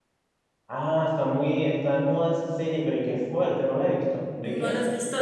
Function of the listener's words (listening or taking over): taking over